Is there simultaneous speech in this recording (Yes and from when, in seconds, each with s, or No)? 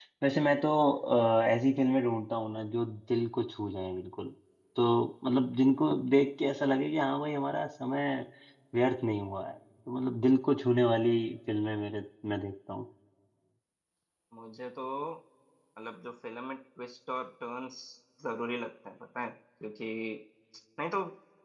No